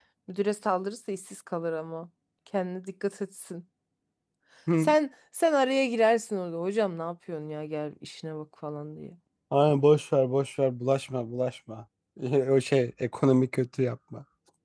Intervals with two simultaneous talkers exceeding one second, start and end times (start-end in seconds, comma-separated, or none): none